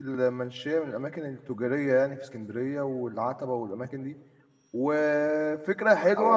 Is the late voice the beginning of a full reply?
No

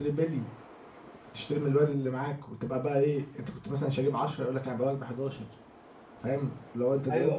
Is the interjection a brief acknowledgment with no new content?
No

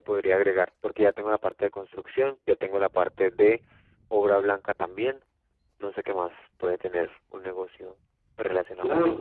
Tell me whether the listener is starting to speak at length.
Yes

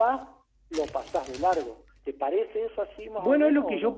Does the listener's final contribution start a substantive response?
Yes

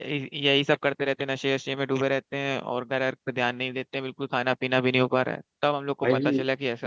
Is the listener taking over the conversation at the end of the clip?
Yes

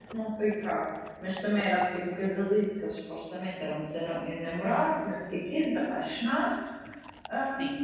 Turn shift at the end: No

